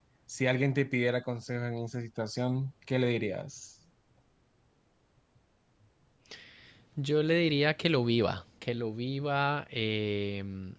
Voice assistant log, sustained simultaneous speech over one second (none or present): none